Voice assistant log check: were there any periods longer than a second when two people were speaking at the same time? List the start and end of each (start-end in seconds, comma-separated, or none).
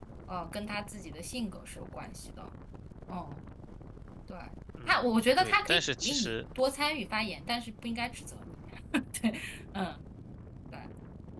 4.9-6.3